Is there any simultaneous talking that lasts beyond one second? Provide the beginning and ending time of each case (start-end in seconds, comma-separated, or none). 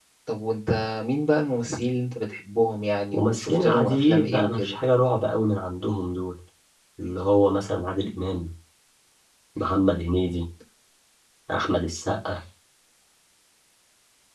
3.1-4.8